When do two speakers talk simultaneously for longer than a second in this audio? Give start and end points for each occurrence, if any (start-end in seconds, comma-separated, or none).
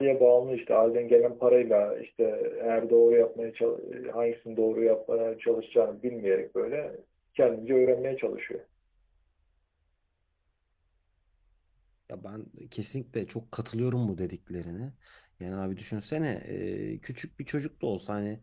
none